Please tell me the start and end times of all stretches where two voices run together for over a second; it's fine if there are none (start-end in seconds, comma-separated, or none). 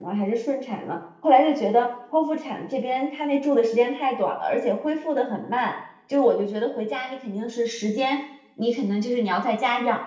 none